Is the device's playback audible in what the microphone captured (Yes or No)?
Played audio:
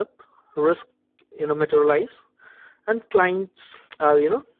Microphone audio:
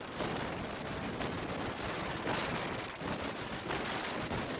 No